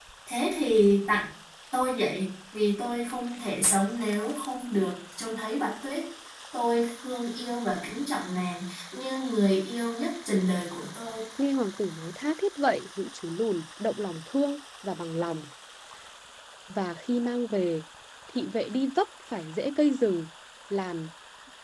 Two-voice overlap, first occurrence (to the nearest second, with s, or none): none